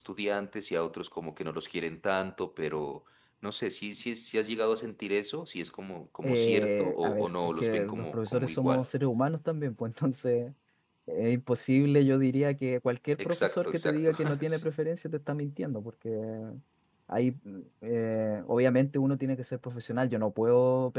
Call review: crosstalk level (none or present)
present